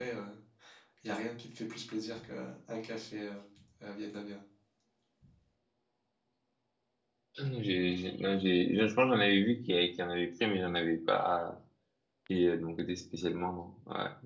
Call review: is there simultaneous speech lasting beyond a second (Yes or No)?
No